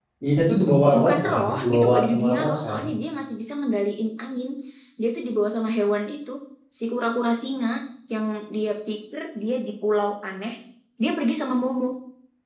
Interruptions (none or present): present